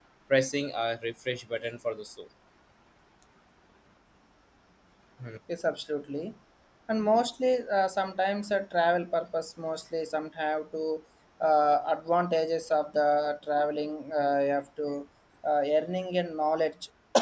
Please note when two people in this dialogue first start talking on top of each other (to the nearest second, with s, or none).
none